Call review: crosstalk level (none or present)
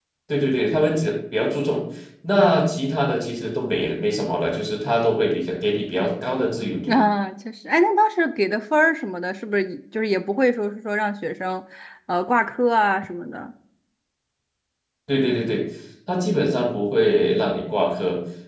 none